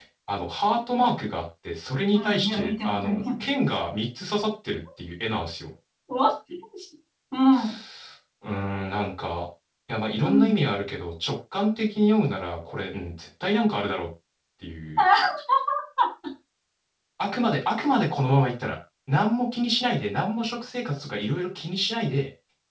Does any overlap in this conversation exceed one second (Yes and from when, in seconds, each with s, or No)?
Yes, from 2.1 s